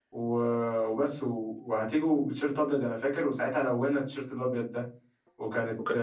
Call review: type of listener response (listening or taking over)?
taking over